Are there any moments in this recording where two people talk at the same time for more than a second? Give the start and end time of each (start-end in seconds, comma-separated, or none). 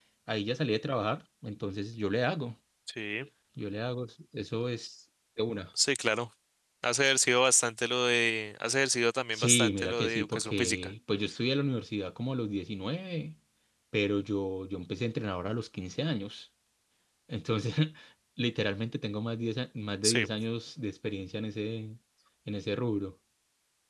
9.3-10.8